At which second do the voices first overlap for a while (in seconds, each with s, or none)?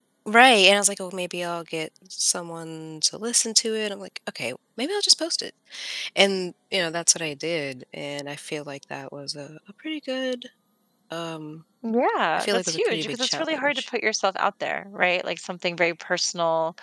12.4 s